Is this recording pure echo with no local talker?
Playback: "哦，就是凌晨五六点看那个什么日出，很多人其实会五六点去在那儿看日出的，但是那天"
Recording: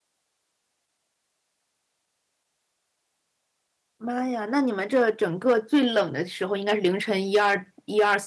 No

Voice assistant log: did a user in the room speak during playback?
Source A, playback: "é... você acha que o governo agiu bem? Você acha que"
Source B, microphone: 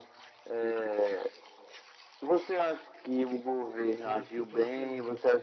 Yes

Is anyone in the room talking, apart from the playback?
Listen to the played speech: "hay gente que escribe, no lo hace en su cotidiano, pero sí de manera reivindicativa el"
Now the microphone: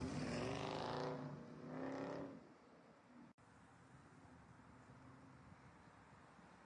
No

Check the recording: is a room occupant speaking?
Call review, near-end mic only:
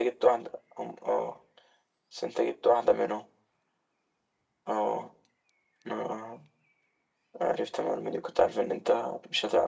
No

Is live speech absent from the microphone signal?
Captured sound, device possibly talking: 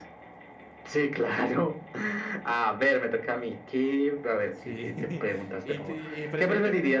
No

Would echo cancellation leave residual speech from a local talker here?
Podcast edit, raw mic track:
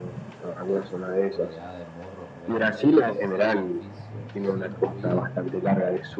Yes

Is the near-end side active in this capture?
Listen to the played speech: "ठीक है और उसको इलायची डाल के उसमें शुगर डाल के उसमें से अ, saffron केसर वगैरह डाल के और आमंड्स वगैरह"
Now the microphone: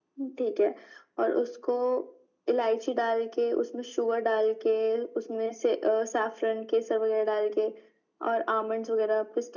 No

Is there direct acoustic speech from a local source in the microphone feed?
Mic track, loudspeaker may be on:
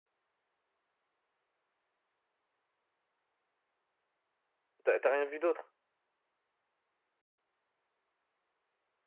Yes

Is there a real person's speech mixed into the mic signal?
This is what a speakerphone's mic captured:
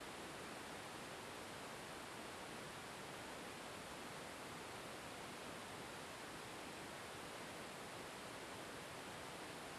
No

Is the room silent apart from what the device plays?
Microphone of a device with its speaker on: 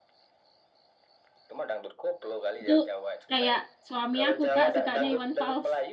No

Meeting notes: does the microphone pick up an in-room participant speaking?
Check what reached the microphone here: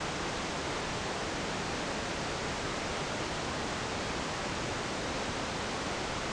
No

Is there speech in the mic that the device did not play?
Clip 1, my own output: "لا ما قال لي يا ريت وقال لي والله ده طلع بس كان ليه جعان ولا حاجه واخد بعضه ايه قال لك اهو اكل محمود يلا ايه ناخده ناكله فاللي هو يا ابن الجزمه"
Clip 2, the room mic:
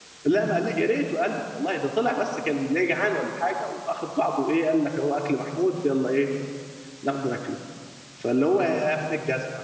No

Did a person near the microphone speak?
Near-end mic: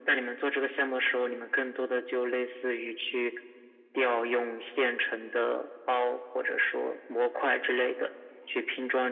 No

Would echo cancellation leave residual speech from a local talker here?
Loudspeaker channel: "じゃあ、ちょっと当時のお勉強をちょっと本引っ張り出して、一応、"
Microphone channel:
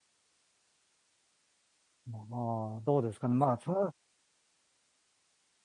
Yes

